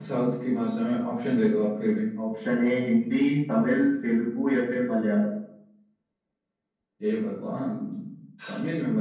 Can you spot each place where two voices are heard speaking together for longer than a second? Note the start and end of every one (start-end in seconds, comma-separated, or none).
none